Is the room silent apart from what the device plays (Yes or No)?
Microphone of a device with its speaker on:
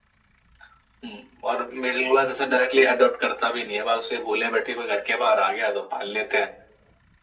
Yes